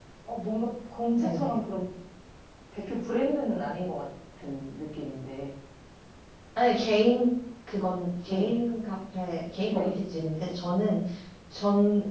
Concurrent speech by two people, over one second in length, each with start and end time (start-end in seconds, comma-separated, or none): none